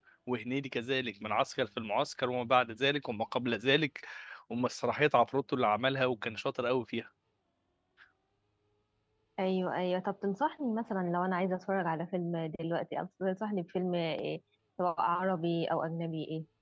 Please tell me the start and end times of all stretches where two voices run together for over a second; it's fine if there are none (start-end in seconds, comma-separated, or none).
none